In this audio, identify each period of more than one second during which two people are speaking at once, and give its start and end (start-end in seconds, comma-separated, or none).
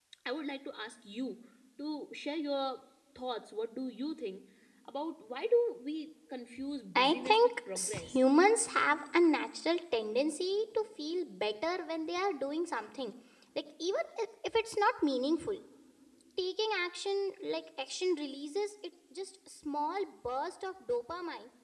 7.0-8.2